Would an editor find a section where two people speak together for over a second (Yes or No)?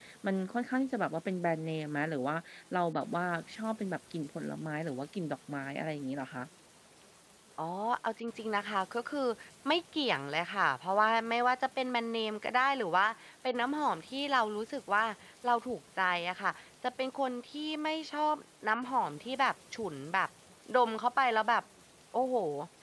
No